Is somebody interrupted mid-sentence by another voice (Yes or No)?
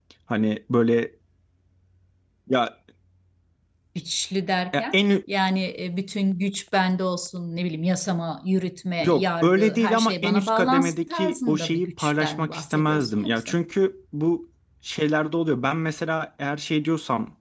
Yes